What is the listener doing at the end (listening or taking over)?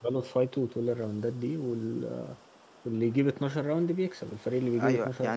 taking over